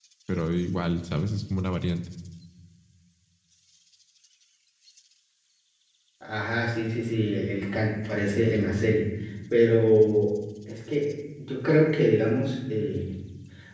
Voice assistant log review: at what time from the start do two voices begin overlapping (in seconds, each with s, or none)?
none